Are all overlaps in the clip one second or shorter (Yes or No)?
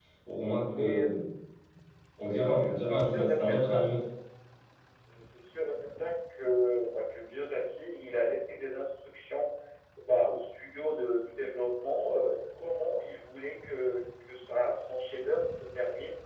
No